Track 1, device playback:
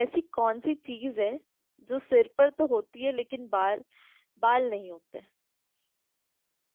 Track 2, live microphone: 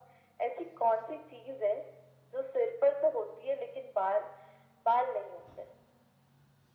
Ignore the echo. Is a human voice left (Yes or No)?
No